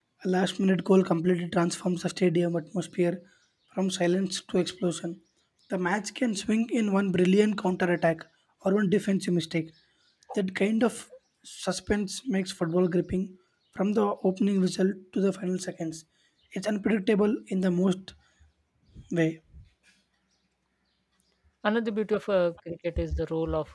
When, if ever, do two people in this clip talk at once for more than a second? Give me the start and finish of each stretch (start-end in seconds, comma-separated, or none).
none